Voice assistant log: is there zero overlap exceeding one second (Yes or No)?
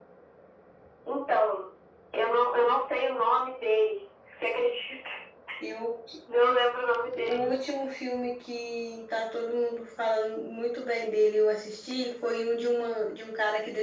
Yes